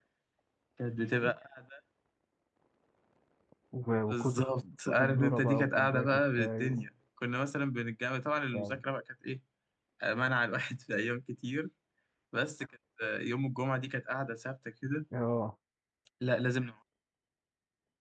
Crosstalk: present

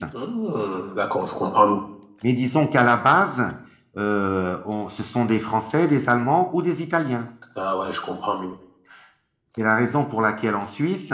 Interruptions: none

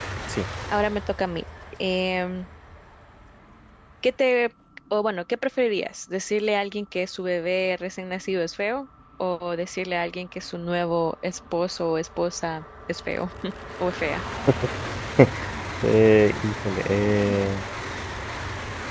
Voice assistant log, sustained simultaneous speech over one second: none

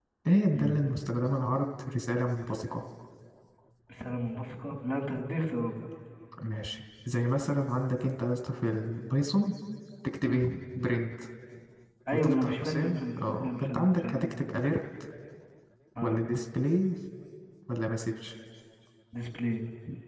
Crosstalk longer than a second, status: present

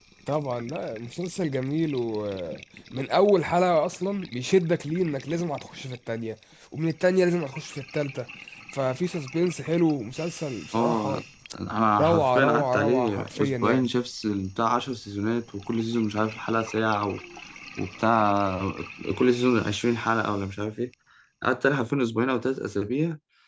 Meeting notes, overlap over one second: present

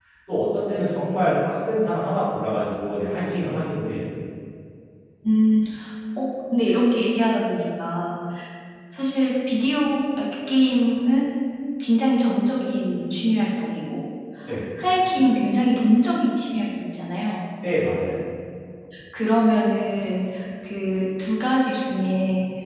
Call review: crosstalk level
none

